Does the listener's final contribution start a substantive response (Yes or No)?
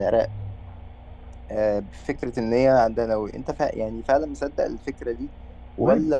No